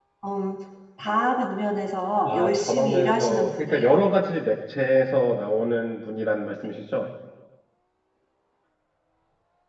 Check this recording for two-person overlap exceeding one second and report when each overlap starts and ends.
2.3-4.0

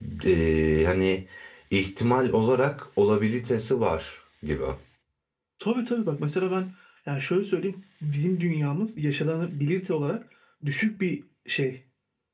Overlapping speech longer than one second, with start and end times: none

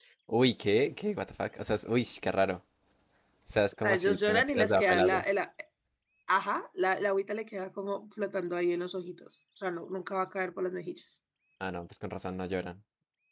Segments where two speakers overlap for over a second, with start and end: 3.8-5.2

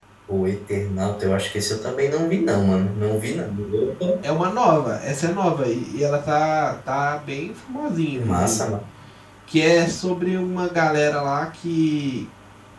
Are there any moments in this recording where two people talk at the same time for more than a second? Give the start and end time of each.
none

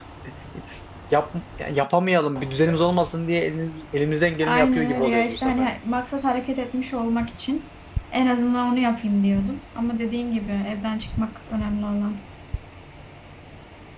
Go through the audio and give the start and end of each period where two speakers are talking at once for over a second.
4.4-5.7

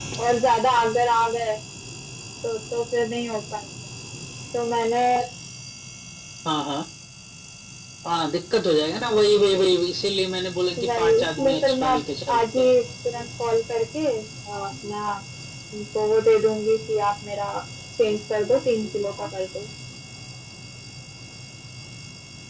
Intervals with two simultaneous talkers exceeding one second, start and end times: 10.8-12.7

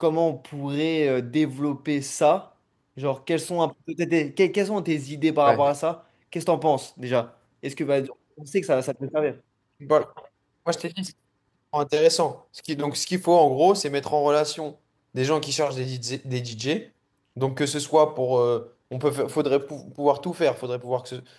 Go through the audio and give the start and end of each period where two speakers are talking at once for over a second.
none

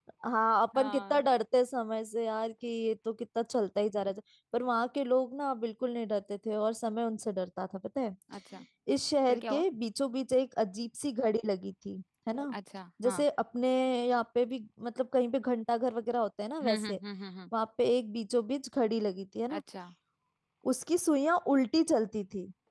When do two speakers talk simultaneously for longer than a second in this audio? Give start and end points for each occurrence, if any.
none

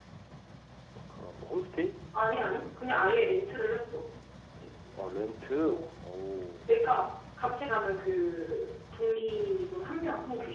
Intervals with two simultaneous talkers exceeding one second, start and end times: none

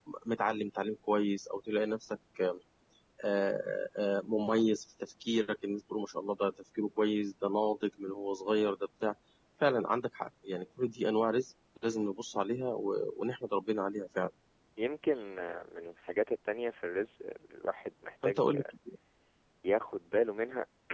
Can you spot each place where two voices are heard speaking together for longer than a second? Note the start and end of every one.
none

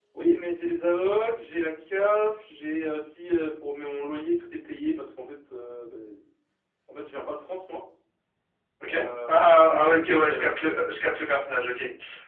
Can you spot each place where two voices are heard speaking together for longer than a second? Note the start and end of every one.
8.9-10.4

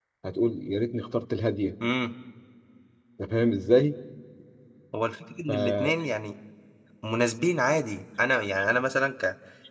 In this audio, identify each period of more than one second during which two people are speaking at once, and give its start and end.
none

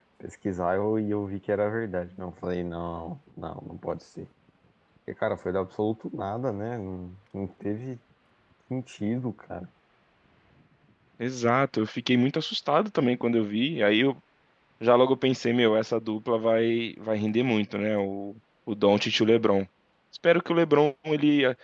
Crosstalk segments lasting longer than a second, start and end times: none

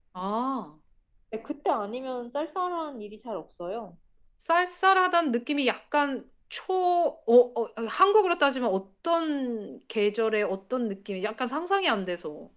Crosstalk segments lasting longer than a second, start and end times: none

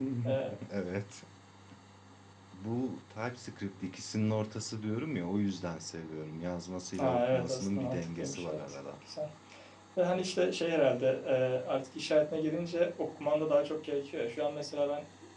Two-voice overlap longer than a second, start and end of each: 7.0-8.8

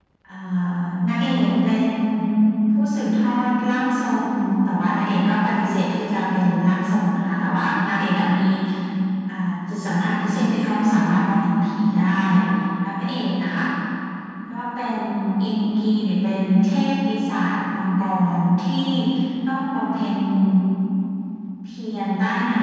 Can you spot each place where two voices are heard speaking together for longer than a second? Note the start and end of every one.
none

